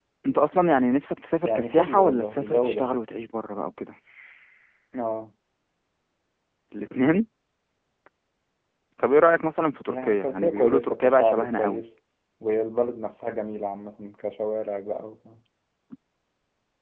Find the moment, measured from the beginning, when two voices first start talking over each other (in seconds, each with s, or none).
1.4 s